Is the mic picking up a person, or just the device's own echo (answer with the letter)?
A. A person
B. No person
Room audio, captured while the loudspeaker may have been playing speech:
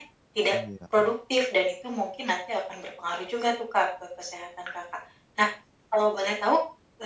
A